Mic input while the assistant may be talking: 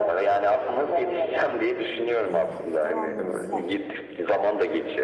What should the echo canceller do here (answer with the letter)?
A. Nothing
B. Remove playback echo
B